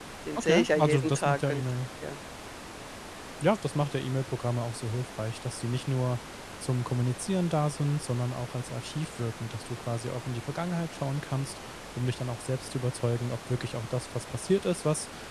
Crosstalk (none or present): present